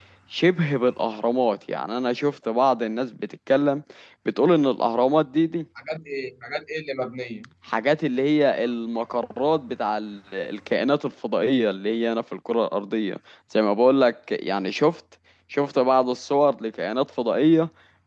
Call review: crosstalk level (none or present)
none